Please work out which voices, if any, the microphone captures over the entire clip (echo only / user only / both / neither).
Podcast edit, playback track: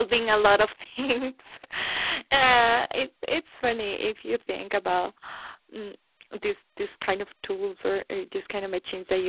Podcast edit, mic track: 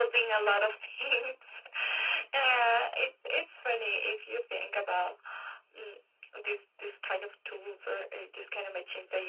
echo only